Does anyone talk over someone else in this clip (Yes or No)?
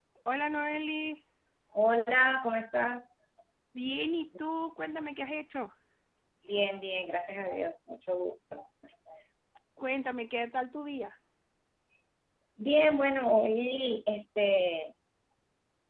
No